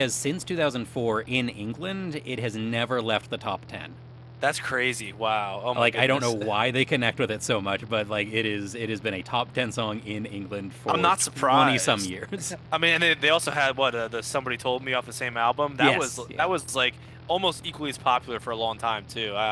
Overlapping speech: Yes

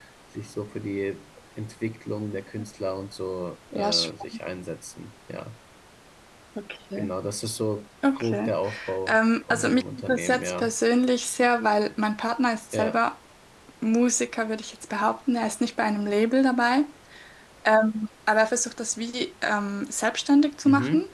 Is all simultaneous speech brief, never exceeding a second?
No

